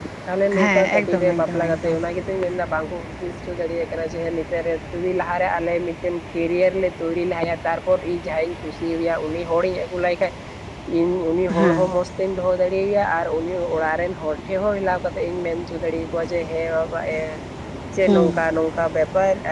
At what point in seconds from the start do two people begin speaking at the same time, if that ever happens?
0.6 s

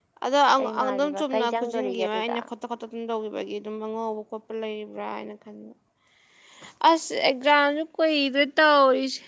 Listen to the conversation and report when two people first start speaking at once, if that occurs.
0.8 s

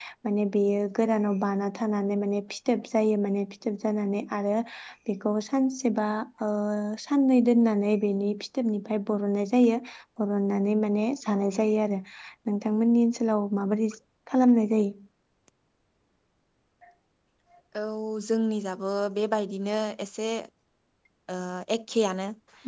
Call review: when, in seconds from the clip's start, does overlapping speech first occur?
none

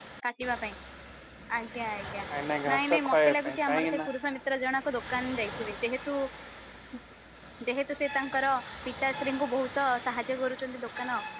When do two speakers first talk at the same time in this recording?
2.7 s

